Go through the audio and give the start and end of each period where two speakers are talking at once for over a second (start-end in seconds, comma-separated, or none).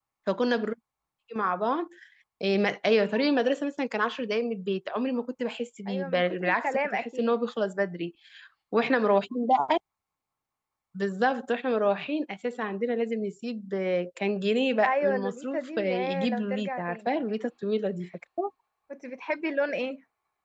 5.9-7.4, 14.9-17.3